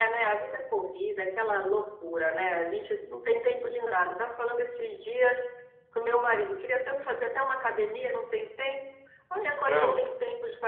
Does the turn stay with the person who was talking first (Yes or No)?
Yes